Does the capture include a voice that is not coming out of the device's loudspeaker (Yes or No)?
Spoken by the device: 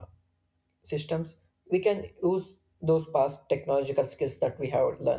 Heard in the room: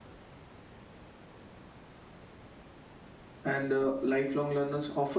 Yes